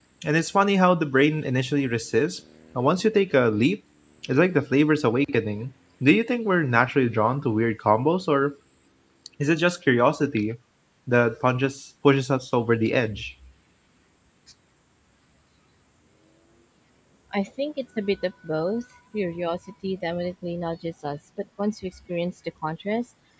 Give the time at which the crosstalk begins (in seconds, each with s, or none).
none